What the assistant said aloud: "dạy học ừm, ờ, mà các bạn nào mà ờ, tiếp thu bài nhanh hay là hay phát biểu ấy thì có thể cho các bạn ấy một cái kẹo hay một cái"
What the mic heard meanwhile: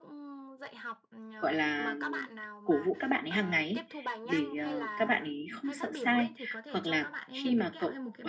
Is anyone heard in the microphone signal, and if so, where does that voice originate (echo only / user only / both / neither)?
both